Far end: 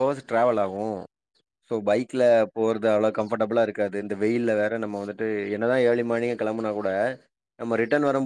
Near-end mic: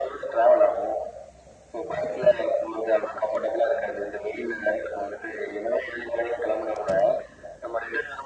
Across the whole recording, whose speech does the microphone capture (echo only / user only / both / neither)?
echo only